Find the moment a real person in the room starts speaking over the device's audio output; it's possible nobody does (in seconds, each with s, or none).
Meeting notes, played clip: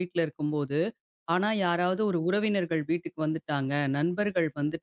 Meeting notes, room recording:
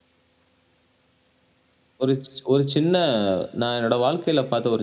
2.0 s